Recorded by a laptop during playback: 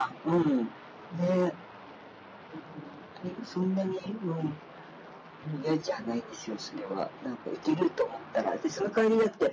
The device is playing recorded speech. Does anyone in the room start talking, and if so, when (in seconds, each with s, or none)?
none